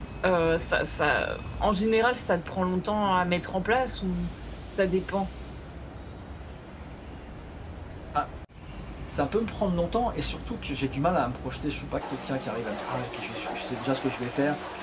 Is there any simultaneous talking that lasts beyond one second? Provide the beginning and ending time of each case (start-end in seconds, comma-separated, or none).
none